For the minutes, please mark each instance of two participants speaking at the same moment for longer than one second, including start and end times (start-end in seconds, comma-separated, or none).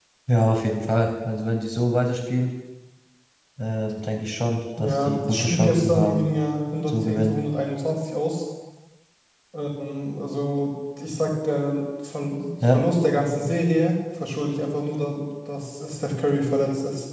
4.8-6.3